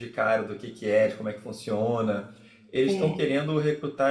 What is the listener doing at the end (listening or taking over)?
listening